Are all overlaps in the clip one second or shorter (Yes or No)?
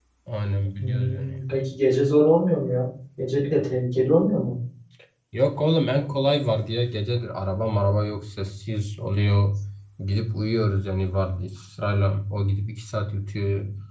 Yes